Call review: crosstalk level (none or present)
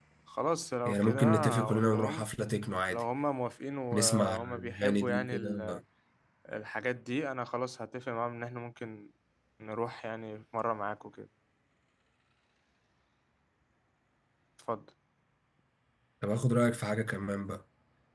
present